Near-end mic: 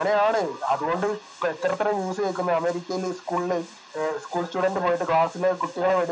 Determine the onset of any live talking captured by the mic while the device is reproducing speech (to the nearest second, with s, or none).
none